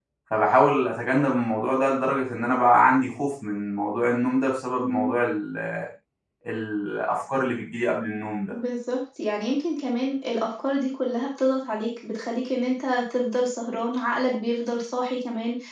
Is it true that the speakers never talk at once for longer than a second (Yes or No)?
Yes